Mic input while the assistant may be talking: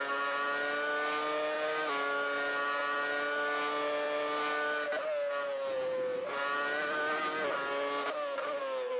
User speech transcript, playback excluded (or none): none